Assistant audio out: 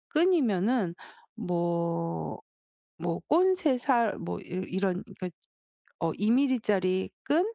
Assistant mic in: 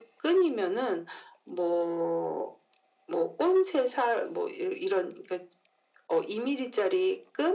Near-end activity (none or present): none